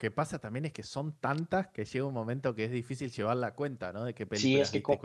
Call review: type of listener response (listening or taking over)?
taking over